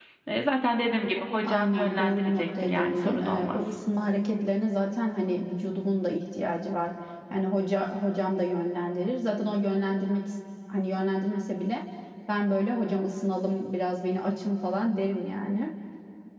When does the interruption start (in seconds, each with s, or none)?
1.4 s